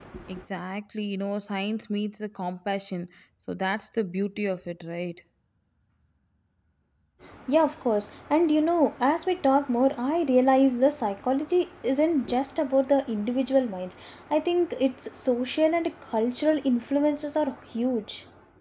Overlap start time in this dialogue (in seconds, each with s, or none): none